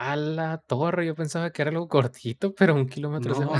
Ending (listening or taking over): taking over